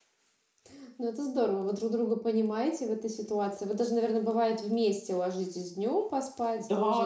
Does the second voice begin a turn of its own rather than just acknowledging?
Yes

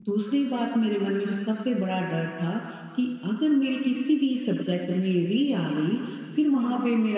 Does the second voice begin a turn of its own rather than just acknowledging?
No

